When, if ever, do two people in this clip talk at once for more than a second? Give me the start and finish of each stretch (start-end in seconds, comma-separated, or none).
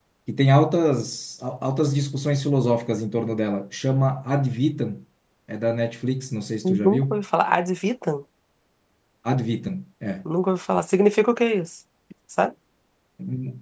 none